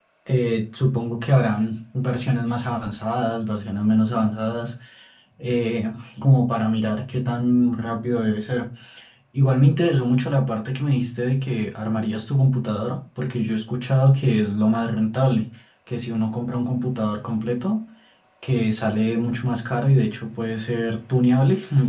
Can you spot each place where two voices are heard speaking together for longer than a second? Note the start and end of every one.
none

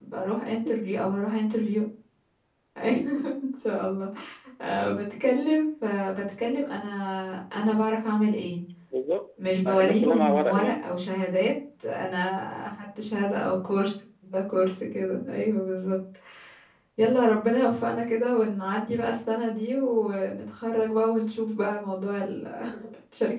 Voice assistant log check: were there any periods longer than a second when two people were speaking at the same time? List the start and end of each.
9.7-10.9

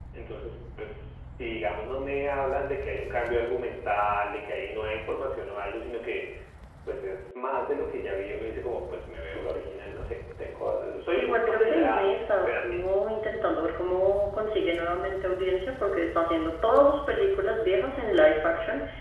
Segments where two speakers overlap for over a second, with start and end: 11.2-12.8

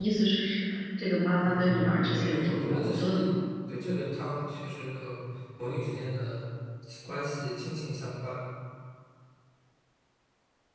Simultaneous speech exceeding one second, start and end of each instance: 1.4-3.3

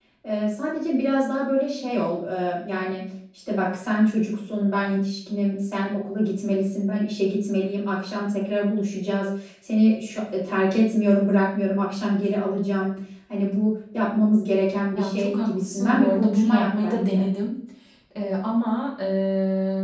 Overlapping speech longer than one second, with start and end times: 14.9-17.3

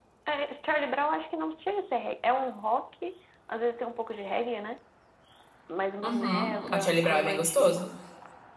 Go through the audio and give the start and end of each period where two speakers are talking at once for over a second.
6.0-7.9

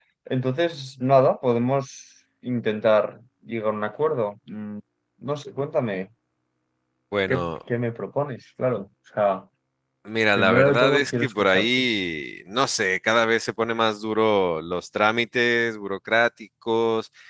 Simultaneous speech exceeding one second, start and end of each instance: 10.3-11.9

